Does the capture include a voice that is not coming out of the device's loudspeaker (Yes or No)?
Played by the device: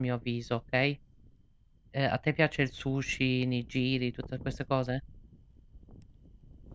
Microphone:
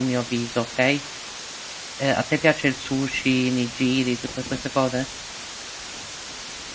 No